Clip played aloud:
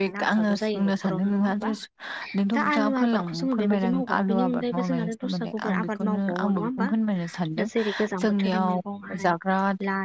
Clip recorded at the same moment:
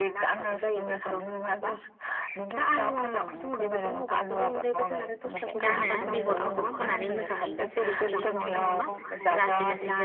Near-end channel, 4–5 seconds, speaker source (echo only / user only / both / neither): echo only